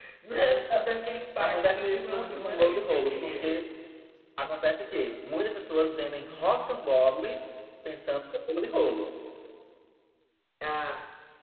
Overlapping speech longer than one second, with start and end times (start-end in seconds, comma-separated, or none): 1.4-3.6